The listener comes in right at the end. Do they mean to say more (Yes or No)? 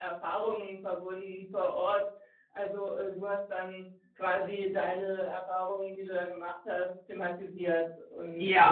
Yes